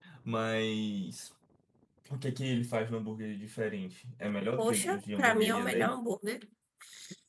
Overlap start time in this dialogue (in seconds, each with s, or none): 4.6 s